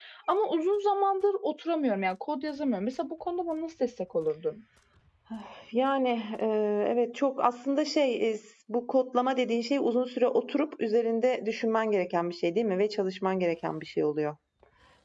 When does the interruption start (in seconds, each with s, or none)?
none